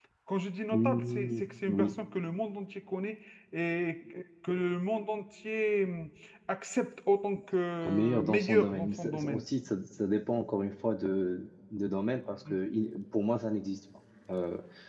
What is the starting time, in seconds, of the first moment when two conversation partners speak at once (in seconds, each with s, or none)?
0.7 s